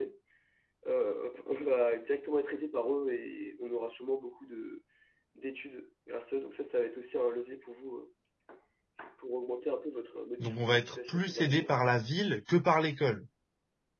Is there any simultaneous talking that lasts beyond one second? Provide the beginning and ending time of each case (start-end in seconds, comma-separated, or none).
10.4-11.7